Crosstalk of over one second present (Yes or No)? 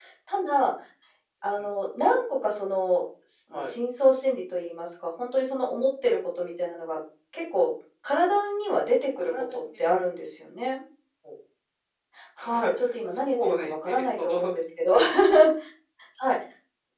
Yes